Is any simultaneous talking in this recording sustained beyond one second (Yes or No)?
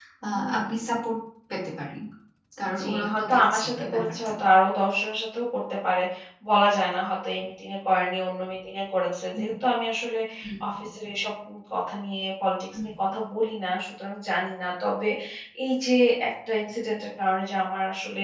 Yes